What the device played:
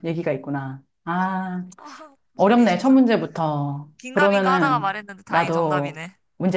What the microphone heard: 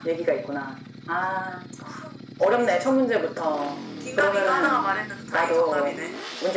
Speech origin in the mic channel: echo only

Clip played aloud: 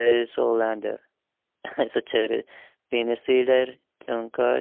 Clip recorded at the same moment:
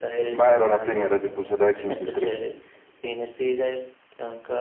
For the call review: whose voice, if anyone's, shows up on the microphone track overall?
both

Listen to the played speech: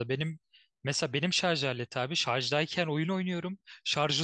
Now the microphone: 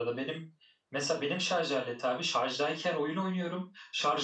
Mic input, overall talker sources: echo only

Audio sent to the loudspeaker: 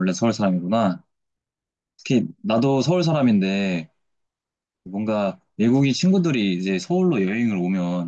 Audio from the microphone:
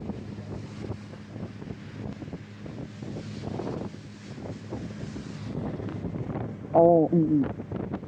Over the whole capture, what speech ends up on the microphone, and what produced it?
user only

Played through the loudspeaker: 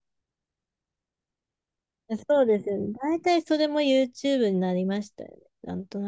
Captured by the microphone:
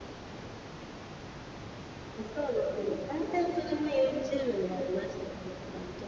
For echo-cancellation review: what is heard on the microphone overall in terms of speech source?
echo only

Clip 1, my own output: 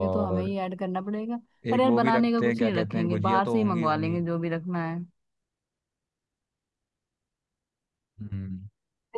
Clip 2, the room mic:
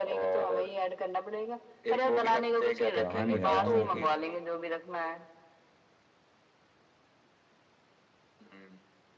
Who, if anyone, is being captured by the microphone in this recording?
both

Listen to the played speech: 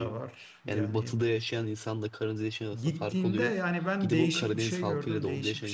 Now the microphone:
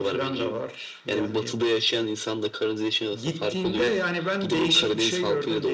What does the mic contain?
echo only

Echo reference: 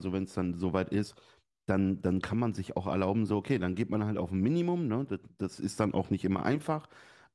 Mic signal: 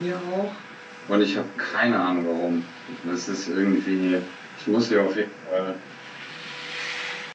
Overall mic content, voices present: user only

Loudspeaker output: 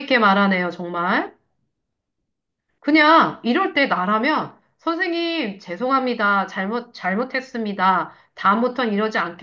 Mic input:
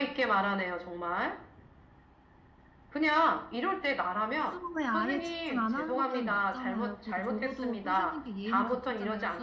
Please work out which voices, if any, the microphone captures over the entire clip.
both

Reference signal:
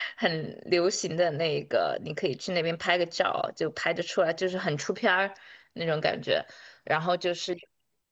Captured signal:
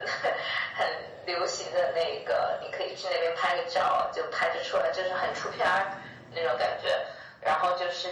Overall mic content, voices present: echo only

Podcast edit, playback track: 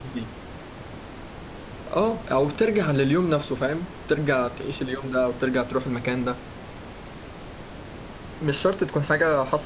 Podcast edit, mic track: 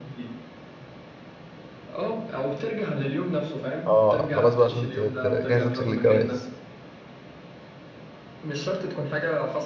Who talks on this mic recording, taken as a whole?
both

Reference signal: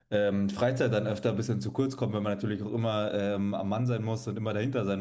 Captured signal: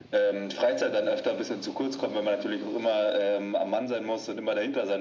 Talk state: echo only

